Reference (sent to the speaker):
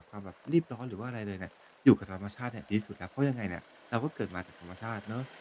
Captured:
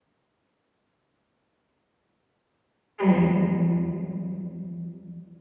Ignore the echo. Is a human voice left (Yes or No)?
Yes